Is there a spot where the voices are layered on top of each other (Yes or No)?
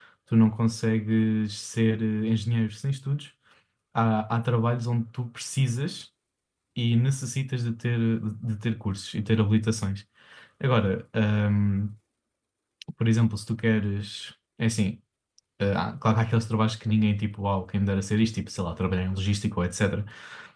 No